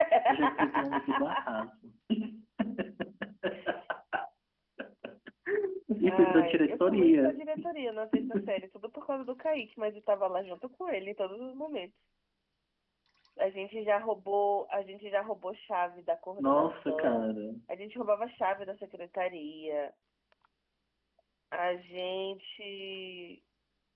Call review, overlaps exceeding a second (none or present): present